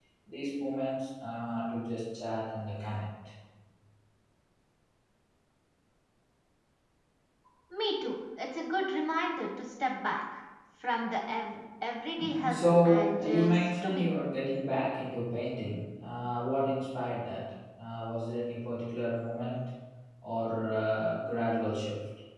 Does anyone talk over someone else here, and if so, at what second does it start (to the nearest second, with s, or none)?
12 s